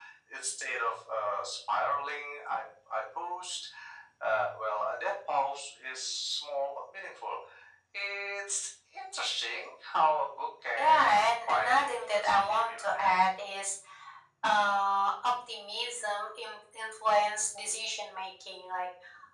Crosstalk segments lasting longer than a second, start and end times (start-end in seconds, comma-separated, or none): 10.8-13.1